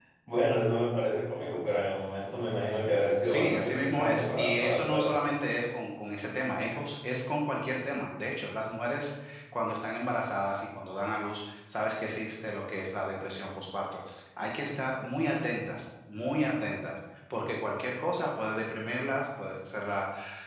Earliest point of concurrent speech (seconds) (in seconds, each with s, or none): 3.2 s